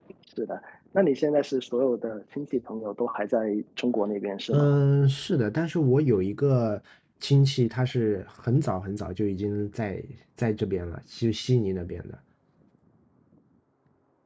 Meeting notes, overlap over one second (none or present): none